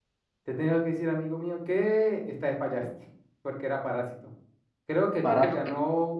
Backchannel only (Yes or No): Yes